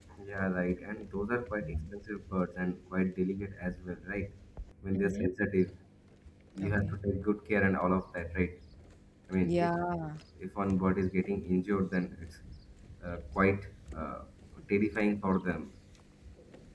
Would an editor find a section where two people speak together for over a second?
No

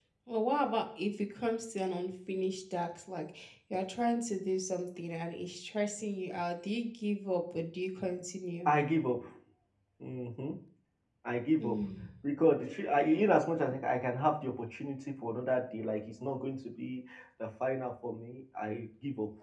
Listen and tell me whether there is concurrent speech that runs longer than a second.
No

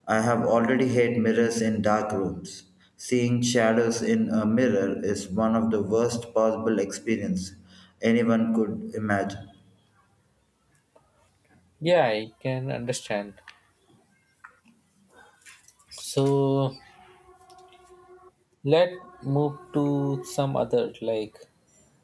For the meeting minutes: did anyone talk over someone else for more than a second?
No

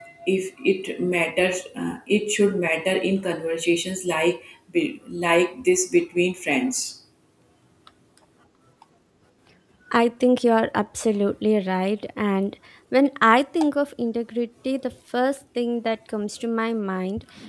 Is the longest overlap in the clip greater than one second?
No

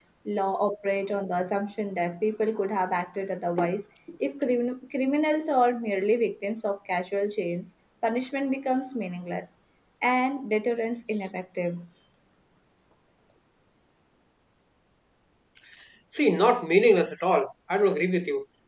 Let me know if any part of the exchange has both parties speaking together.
No

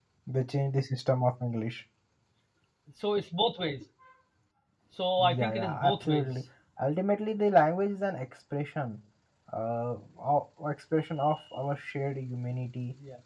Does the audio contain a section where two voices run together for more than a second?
Yes, from 5.2 s

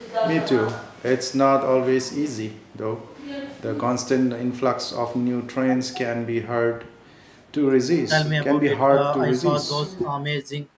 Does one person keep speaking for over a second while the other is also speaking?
Yes, from 8.1 s

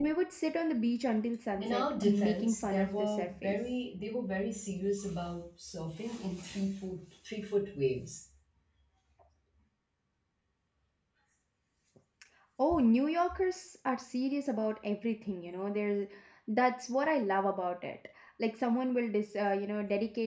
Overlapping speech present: Yes, from 1.6 s

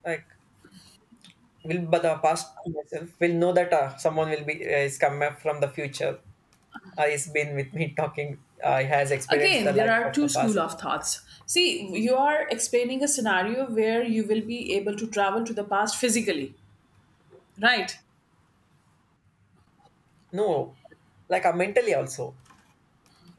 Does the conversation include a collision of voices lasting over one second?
Yes, from 9.3 s

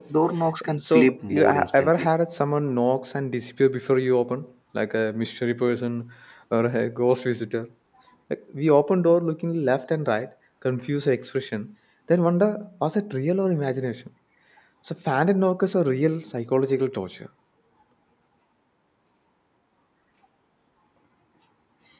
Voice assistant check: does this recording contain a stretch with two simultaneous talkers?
Yes, from 0.8 s

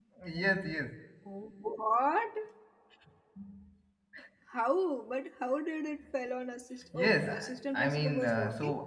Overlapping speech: Yes, from 6.9 s

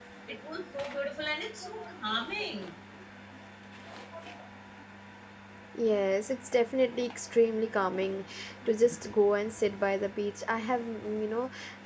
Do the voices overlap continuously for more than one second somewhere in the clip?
No

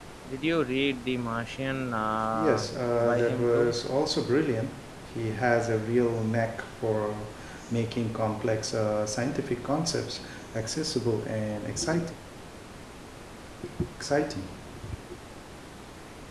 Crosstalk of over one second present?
Yes, from 2.3 s

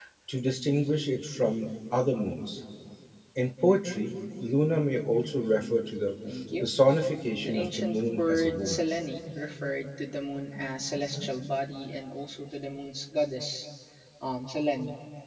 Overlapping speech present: Yes, from 7.4 s

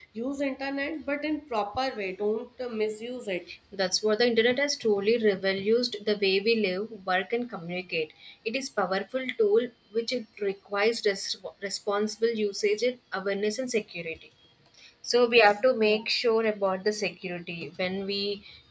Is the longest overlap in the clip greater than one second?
No

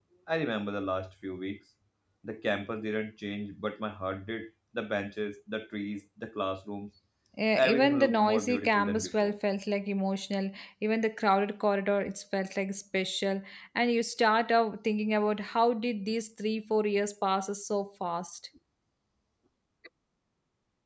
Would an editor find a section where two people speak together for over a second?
Yes, from 7.5 s

